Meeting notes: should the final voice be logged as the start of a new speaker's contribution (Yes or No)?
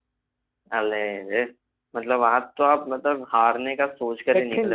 No